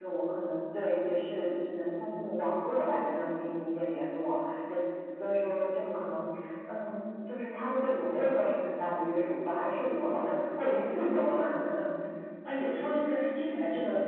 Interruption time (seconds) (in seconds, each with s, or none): none